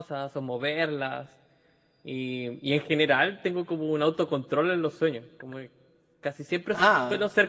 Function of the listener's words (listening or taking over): listening